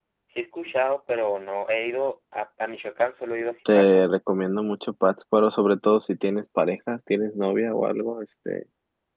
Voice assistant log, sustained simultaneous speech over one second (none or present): none